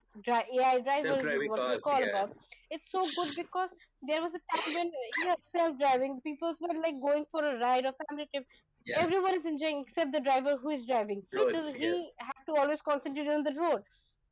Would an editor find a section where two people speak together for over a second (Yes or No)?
Yes